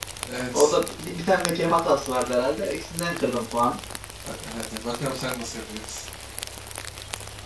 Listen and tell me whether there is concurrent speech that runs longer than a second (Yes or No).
No